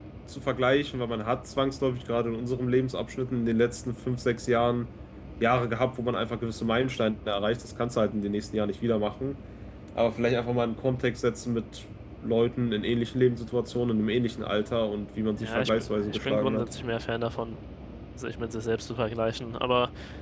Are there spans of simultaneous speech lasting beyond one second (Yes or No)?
Yes